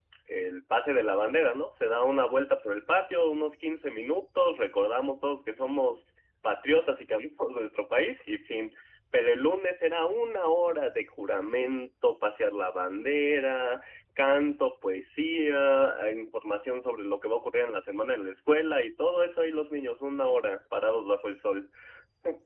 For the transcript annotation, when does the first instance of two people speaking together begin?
none

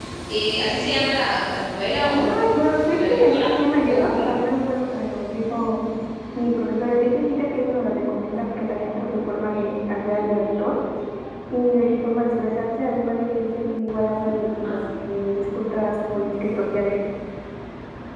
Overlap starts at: 2.1 s

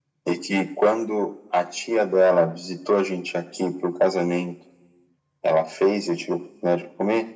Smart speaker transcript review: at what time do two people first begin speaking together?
none

